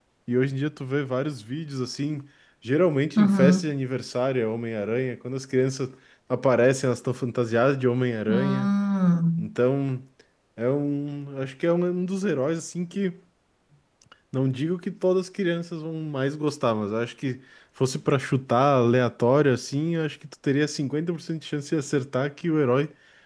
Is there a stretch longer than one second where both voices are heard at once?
No

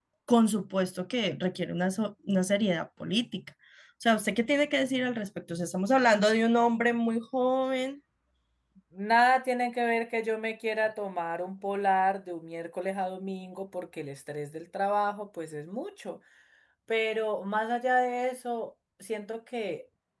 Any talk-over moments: No

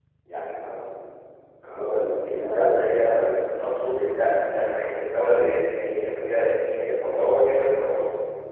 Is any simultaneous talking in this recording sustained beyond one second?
Yes, from 2.4 s

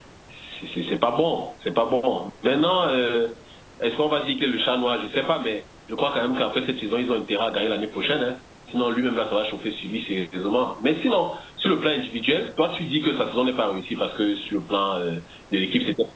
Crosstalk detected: No

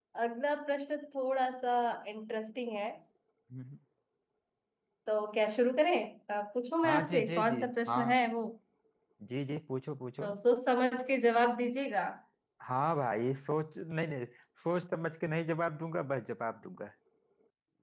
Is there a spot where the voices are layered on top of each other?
Yes, from 6.8 s

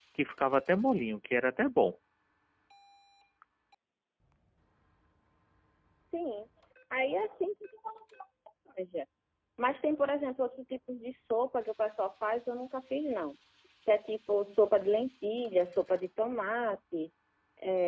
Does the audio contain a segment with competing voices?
No

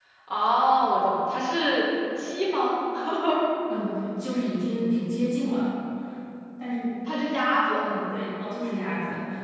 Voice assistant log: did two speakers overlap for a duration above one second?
No

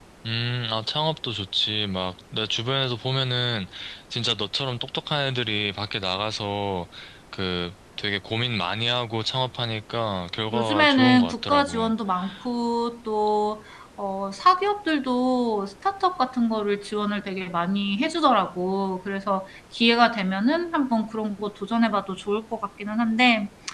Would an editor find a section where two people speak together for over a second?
Yes, from 10.5 s

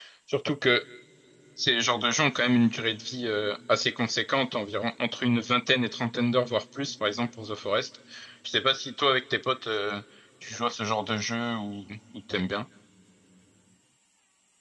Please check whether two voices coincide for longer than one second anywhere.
No

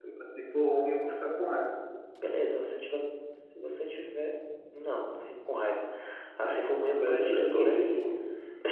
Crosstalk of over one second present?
Yes, from 6.4 s

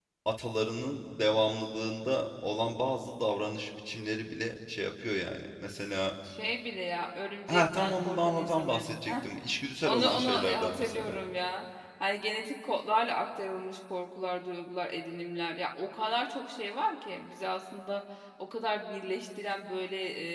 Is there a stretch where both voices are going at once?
Yes, from 7.5 s

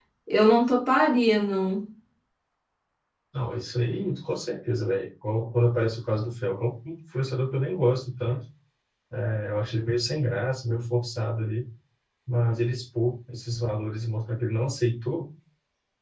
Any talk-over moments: No

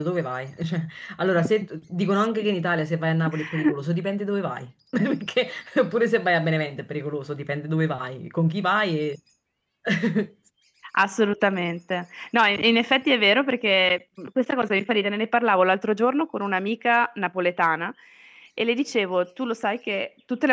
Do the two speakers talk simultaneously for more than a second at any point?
No

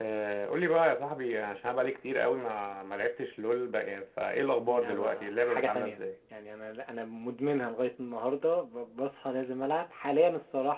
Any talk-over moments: Yes, from 4.7 s

